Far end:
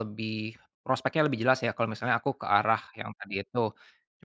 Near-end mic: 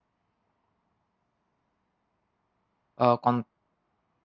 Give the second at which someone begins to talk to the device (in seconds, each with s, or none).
3.0 s